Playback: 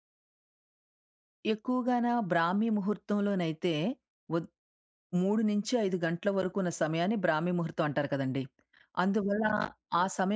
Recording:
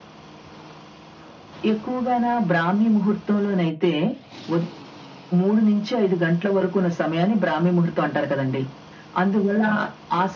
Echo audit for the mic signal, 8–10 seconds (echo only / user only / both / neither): echo only